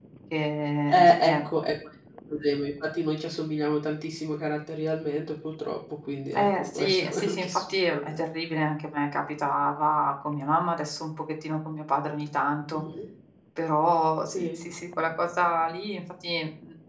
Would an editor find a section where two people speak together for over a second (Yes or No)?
Yes